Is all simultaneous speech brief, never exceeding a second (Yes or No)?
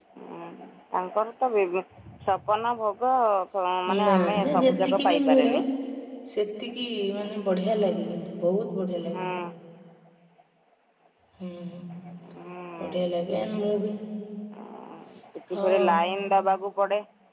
No